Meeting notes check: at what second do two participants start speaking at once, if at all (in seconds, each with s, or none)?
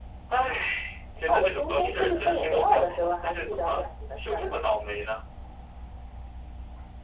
1.3 s